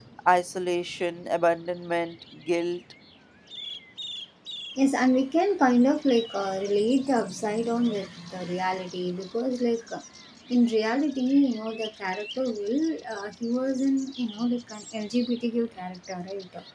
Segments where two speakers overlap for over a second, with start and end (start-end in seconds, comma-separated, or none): none